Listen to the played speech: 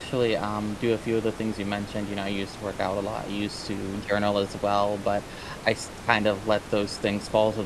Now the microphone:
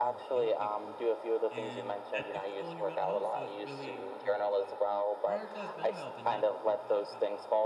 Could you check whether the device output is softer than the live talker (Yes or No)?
No